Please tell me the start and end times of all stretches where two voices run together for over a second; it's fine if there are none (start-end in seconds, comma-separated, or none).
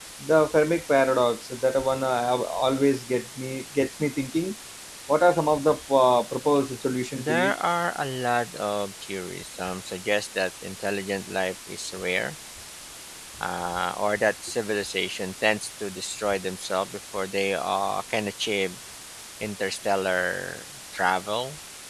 none